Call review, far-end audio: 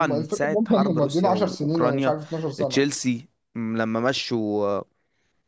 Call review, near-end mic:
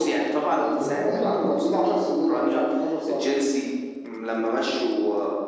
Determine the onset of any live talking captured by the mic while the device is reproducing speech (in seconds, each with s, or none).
0.8 s